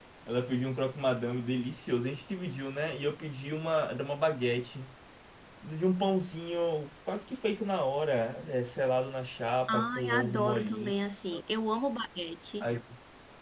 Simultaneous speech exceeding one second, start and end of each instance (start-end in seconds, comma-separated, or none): 9.7-10.9